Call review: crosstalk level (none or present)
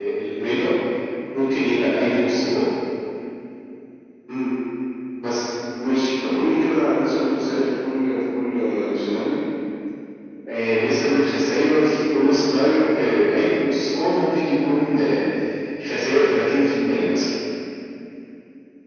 none